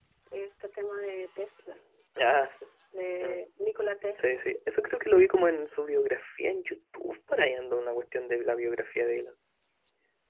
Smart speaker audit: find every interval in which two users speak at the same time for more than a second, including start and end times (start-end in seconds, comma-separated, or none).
none